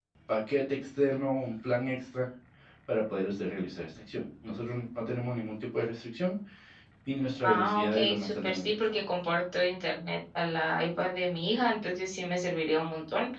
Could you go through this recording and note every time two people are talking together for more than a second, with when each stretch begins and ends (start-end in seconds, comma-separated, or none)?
7.5-9.0